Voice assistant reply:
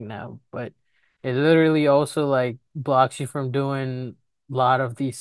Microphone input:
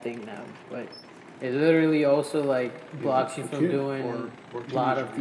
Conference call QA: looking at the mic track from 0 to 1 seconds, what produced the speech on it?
echo only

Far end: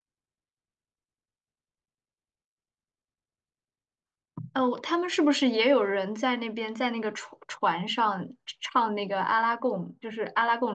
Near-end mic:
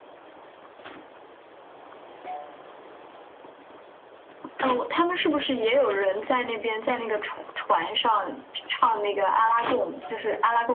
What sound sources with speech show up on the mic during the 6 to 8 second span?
echo only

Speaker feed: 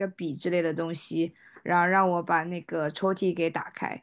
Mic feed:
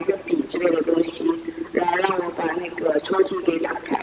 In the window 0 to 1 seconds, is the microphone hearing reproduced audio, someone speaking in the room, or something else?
echo only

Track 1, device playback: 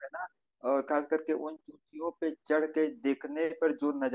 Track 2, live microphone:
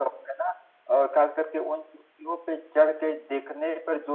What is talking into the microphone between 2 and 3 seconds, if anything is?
echo only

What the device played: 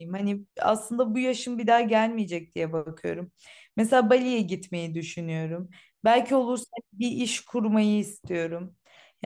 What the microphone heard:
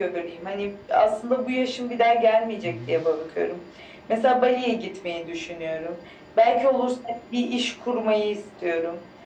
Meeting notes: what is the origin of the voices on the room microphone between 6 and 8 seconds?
echo only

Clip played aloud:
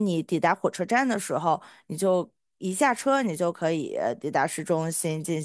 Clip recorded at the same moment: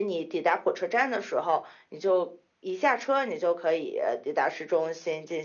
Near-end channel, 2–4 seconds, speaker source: echo only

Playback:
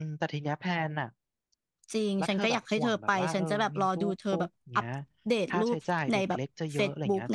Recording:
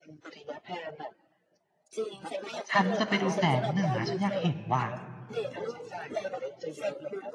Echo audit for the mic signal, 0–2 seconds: echo only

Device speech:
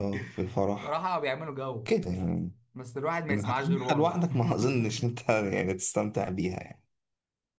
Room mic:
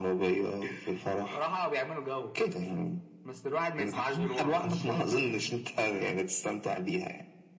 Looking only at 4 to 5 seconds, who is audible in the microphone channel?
both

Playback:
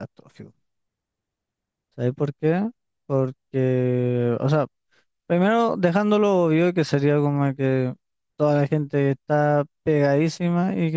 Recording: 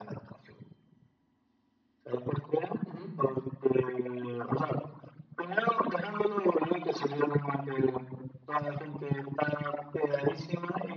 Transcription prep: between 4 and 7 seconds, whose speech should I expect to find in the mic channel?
echo only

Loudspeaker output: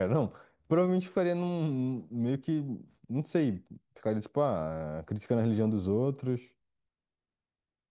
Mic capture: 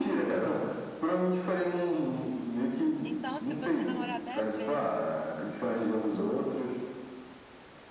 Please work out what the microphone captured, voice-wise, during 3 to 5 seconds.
both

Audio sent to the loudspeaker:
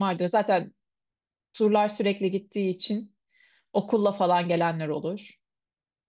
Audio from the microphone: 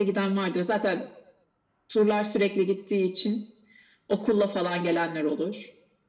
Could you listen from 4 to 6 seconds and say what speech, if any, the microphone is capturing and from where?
echo only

